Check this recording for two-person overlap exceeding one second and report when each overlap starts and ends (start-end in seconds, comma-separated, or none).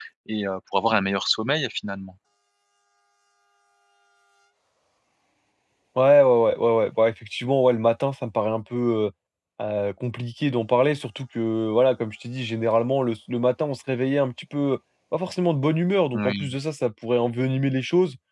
none